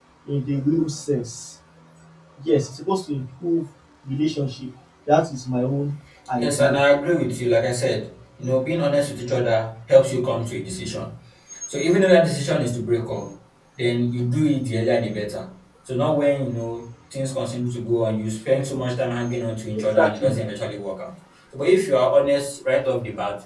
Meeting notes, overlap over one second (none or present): none